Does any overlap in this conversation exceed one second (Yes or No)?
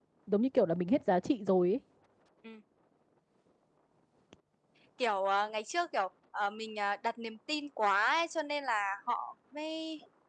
No